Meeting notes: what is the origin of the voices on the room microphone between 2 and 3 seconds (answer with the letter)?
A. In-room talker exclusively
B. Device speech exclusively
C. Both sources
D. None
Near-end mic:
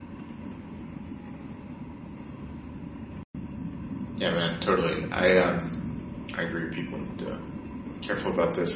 D